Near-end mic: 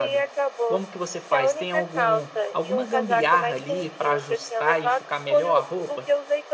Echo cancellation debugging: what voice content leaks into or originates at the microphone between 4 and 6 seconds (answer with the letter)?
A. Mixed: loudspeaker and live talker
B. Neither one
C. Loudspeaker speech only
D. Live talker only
A